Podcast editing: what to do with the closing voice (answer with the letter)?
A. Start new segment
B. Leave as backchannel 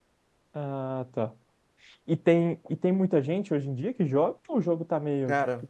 A